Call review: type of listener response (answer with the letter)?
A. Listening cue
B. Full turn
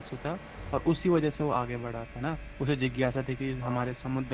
A